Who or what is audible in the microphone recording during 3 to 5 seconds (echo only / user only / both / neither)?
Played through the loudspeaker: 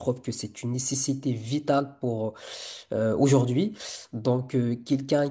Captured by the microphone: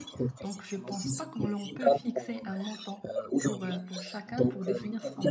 both